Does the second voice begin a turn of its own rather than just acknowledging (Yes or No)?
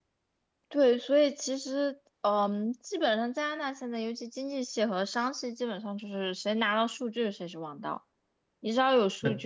No